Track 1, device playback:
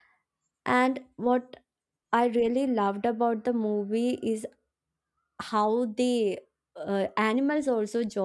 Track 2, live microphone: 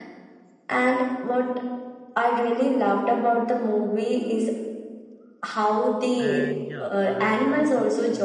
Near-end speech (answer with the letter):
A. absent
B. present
B